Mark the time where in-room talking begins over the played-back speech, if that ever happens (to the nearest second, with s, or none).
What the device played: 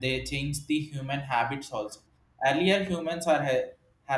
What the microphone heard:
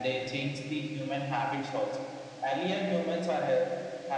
none